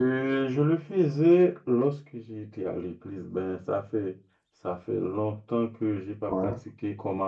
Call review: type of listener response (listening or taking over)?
listening